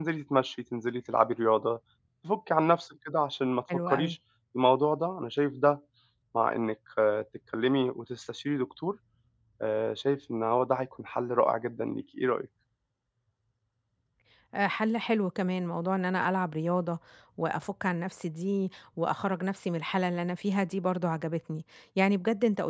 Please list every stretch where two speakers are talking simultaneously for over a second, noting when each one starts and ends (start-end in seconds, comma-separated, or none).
none